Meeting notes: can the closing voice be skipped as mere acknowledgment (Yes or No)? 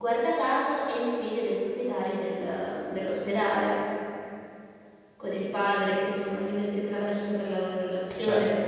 Yes